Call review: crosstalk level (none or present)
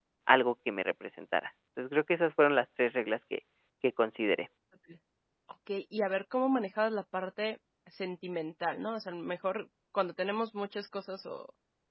none